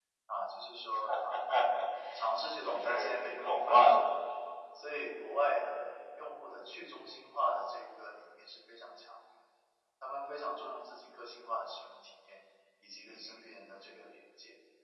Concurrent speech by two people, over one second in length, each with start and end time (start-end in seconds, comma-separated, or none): 2.6-4.1